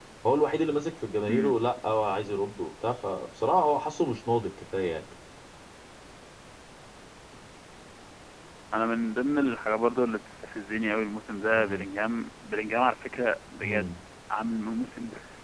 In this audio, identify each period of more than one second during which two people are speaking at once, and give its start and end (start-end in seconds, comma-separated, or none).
none